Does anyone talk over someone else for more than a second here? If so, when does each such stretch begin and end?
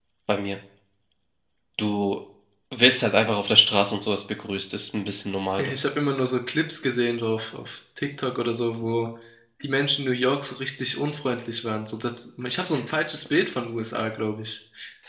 none

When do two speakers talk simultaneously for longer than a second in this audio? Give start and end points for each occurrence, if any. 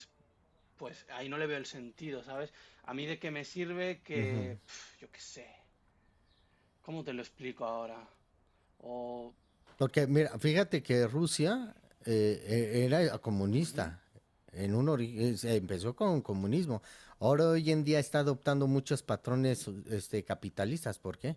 none

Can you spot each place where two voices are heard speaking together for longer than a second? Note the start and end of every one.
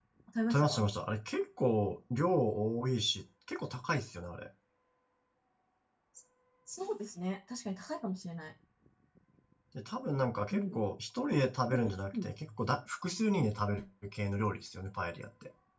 none

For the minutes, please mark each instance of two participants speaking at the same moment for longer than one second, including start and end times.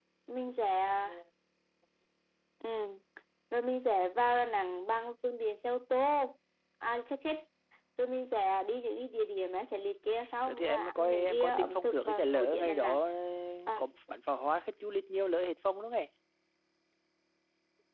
10.4-13.0

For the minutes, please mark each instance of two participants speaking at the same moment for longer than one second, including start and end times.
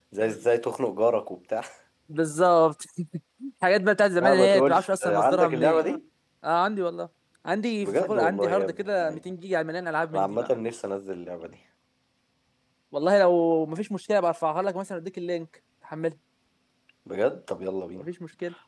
4.2-5.9, 7.8-9.3

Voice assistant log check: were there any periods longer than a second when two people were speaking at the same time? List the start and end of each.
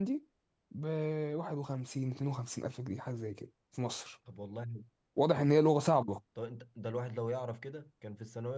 none

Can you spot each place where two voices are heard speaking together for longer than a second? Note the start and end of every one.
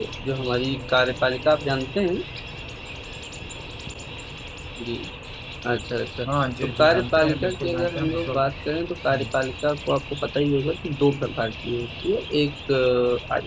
6.6-8.5

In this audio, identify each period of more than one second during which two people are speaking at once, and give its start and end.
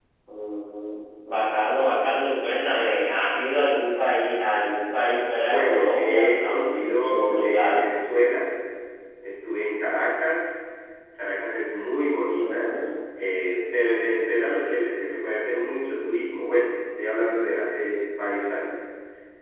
5.4-7.8

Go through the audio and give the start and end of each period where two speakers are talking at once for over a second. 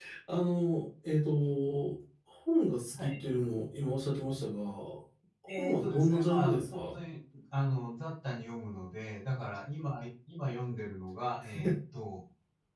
5.6-7.0

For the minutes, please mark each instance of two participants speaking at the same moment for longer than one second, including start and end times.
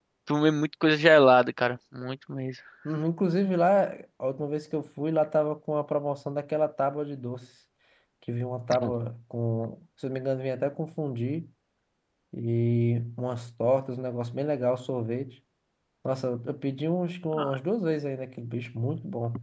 none

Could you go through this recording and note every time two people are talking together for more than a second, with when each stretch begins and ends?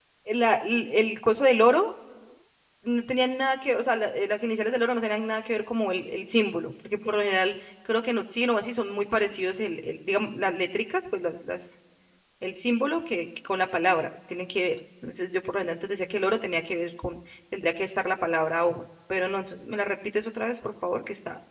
none

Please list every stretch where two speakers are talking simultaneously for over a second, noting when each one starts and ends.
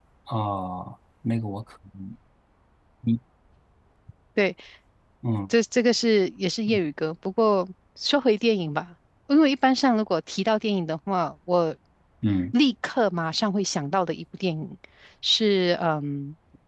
none

